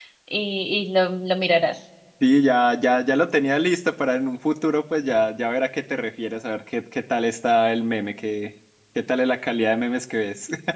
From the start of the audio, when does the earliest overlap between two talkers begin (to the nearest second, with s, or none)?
none